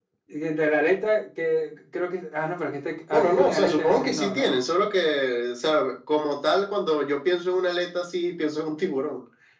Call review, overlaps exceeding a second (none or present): present